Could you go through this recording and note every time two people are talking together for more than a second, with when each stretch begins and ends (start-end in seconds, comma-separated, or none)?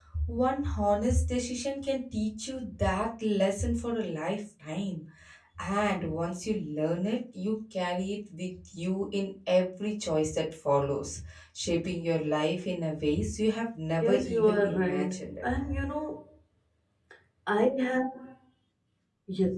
14.0-15.6